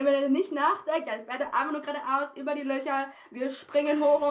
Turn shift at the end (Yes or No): No